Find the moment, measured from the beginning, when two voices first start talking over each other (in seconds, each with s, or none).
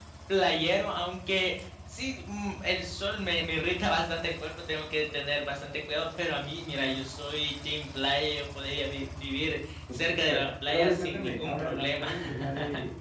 9.9 s